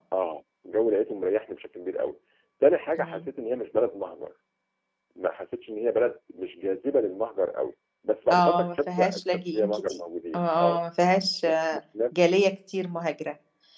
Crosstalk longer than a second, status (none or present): present